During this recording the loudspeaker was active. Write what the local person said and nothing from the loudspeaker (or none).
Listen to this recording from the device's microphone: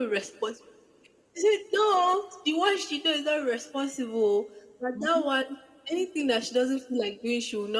Mhm.